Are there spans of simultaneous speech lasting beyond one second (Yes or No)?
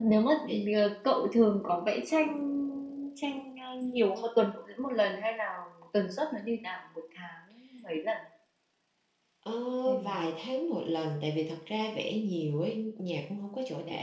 No